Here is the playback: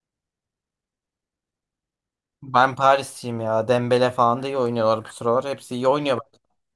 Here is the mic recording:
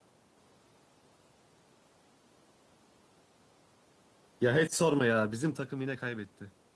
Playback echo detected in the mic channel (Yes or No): No